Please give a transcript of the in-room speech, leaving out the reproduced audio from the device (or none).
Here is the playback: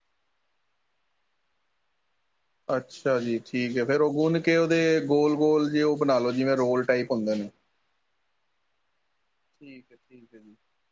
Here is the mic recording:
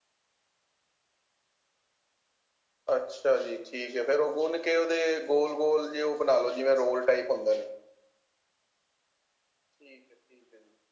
none